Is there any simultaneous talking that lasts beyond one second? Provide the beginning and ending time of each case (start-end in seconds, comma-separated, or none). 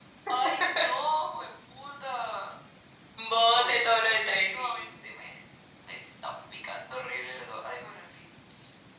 3.5-4.8